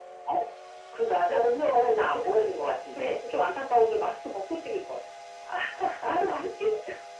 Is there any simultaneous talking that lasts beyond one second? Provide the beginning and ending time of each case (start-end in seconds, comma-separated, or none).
1.3-3.1